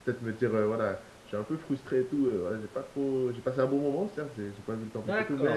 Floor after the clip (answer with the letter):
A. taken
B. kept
A